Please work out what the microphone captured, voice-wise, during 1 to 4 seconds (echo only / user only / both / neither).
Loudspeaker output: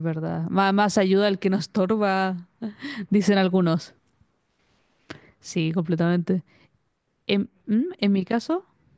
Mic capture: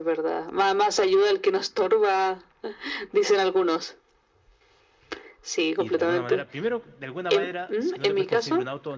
echo only